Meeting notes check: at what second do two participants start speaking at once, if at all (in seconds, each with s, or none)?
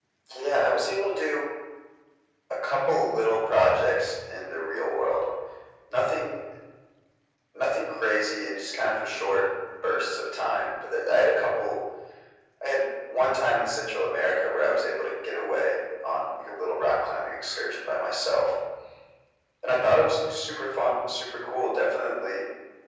none